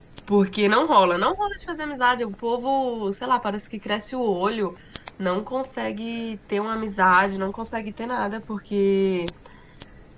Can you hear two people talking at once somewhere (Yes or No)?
No